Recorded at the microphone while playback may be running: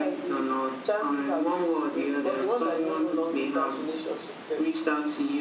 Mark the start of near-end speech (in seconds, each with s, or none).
none